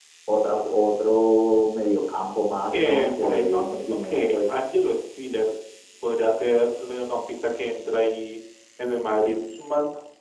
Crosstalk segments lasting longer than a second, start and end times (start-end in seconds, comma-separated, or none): 2.7-4.5